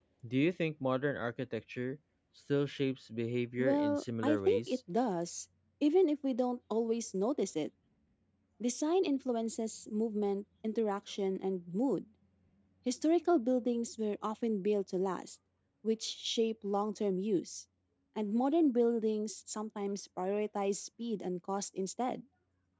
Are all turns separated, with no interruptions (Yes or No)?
No